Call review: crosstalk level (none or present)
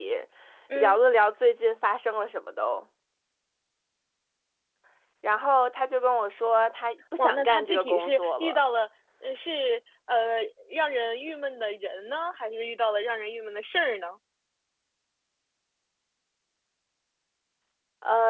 present